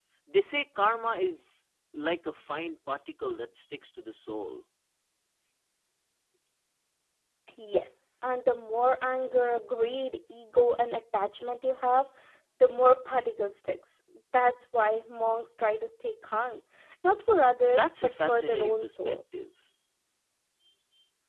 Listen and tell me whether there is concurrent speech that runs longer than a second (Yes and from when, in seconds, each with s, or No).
Yes, from 17.6 s